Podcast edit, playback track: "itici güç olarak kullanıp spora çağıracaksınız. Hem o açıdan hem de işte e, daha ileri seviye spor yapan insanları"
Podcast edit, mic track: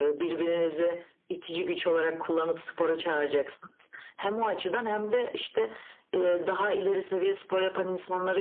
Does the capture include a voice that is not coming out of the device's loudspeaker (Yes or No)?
No